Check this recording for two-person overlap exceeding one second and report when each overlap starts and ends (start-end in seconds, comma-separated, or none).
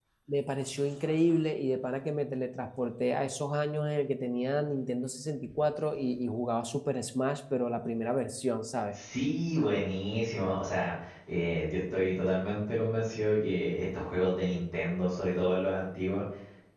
none